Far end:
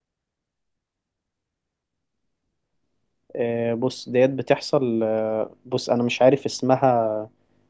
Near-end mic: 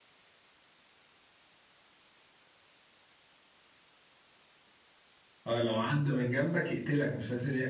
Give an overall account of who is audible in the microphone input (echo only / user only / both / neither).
user only